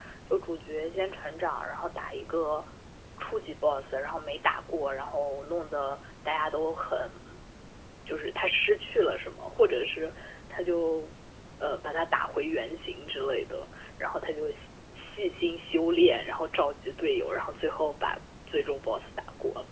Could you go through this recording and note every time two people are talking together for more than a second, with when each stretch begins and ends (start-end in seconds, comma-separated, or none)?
none